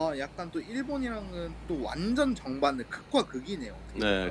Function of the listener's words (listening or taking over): taking over